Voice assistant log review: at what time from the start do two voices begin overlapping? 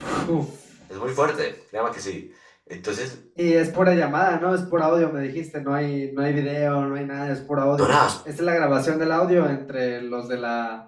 none

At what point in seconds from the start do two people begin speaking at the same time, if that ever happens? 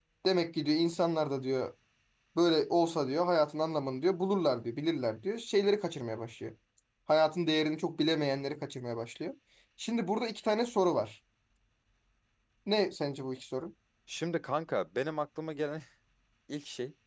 none

